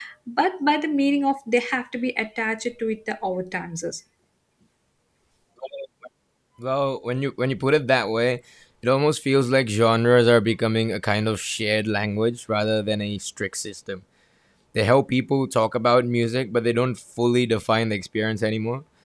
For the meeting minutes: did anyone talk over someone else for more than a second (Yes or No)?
No